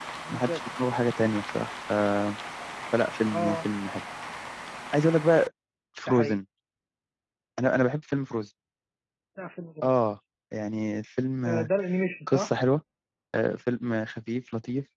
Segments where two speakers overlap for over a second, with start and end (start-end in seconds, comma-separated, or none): none